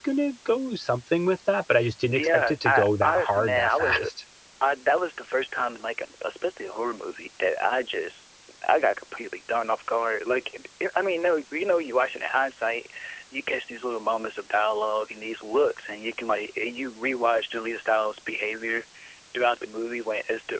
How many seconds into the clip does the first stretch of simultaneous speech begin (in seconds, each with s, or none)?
2.1 s